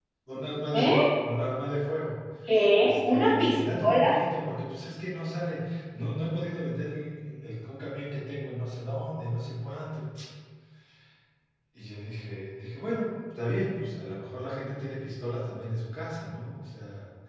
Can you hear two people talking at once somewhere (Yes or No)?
Yes